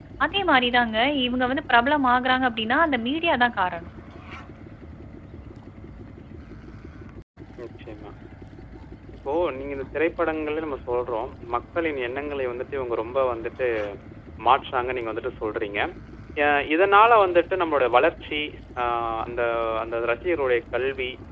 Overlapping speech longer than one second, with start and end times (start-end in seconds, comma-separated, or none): none